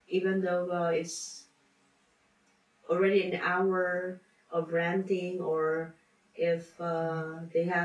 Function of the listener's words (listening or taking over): listening